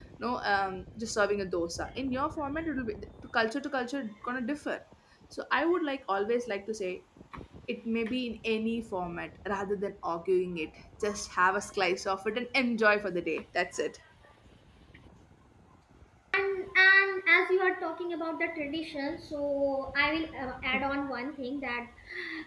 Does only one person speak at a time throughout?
Yes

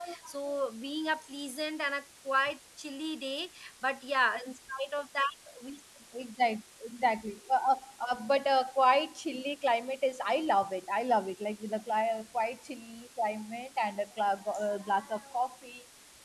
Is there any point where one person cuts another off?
No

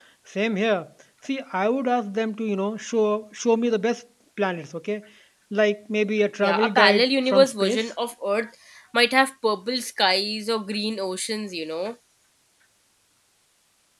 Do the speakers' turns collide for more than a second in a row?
Yes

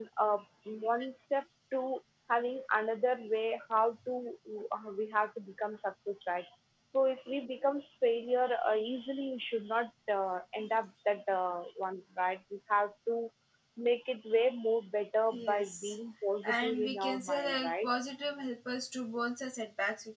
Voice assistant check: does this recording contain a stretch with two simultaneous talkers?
Yes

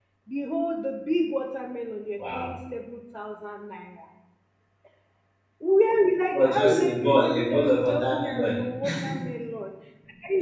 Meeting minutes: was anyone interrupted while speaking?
Yes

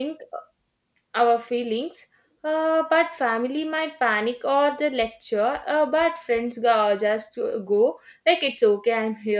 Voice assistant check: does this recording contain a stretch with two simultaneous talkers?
No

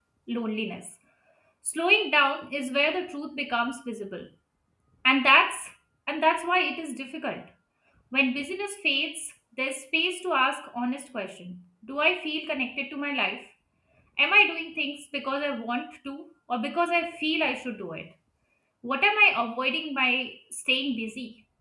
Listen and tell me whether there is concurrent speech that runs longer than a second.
No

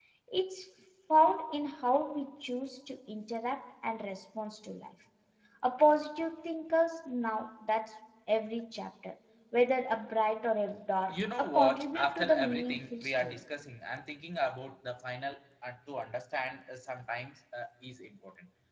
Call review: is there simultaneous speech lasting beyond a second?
Yes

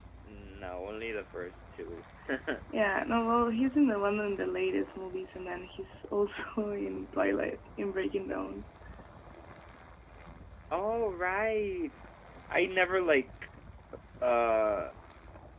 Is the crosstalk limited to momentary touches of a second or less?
Yes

